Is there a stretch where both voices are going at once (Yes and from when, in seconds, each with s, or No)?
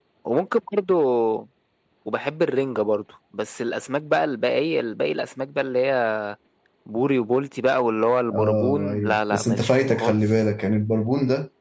Yes, from 8.3 s